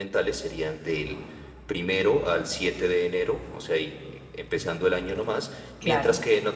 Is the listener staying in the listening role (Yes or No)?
Yes